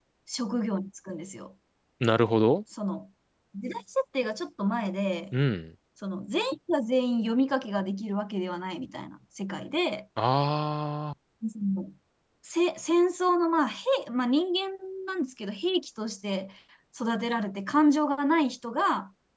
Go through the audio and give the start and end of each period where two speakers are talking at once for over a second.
none

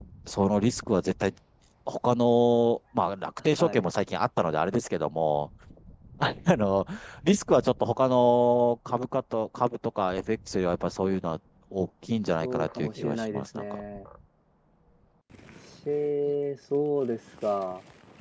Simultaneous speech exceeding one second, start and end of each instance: 12.4-13.8

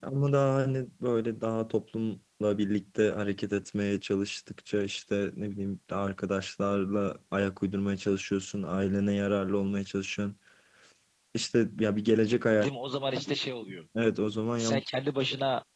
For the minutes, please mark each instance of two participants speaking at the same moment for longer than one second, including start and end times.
none

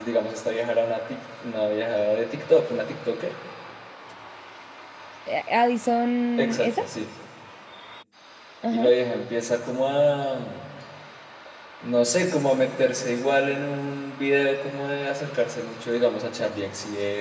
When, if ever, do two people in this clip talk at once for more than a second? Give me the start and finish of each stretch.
none

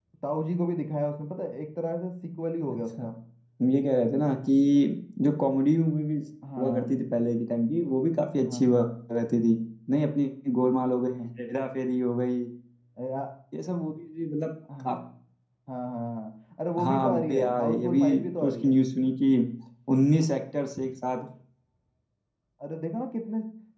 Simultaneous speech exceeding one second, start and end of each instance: 16.8-18.8

